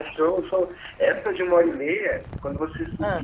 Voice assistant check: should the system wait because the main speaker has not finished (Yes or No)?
Yes